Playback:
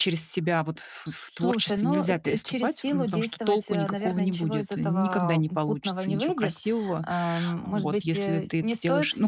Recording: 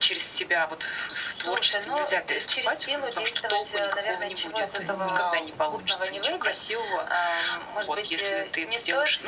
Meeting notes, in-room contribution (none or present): present